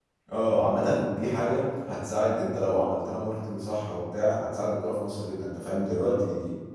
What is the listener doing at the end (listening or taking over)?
taking over